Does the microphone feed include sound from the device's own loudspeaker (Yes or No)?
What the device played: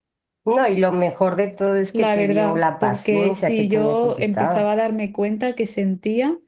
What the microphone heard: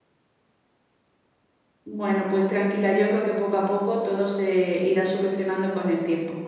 No